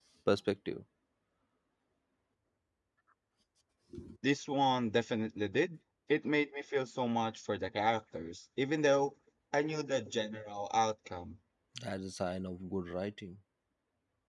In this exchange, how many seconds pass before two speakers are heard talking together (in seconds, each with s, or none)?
none